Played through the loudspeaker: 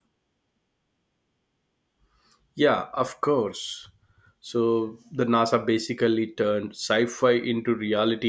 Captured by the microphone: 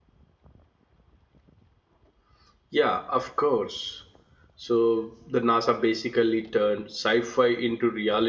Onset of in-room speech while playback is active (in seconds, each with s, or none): none